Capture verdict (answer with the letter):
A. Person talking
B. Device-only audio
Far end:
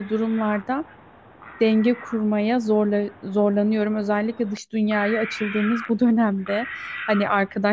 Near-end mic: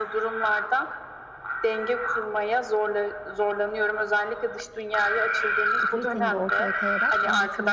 A